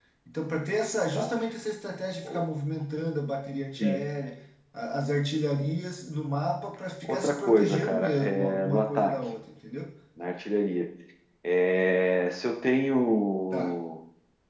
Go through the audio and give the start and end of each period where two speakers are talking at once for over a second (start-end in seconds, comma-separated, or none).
7.0-9.1